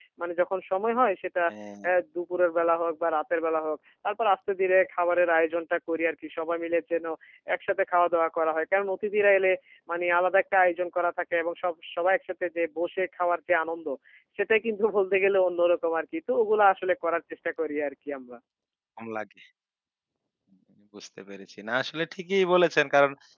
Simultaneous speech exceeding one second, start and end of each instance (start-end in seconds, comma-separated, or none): none